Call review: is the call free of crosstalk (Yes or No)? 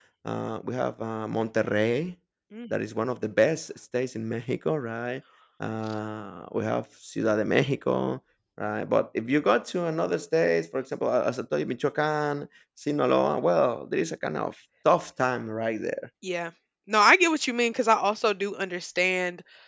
Yes